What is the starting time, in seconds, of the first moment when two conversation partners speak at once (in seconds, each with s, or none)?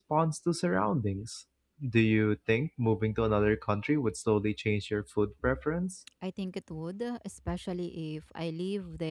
none